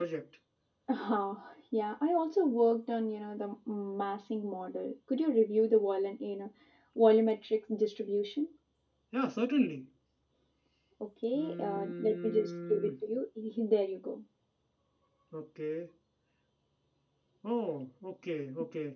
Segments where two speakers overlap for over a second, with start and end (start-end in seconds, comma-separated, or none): 11.3-12.9